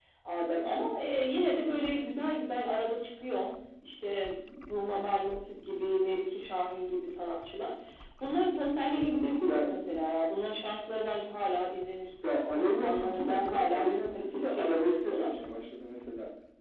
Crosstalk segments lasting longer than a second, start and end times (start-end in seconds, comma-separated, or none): 12.6-15.3